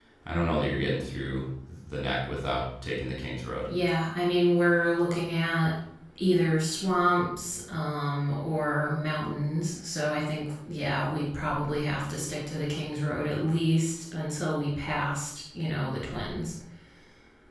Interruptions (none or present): none